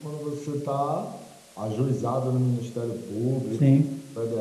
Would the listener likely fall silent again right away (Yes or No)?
Yes